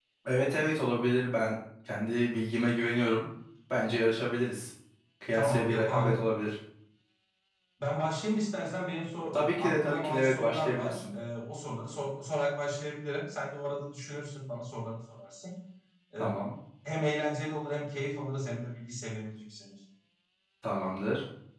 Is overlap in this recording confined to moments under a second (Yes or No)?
No